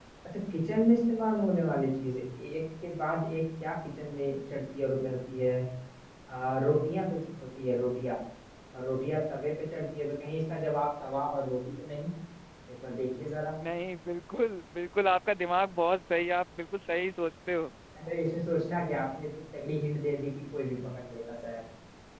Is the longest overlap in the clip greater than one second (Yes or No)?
No